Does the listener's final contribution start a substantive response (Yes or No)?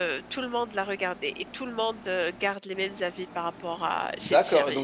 Yes